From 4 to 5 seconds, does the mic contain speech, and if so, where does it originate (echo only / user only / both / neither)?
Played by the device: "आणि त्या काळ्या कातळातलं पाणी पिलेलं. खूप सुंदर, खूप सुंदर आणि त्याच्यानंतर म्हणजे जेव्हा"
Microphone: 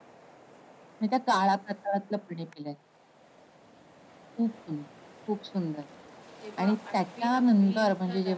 echo only